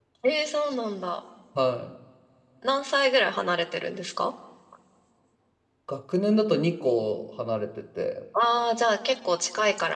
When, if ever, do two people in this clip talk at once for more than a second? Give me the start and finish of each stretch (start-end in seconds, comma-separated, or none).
none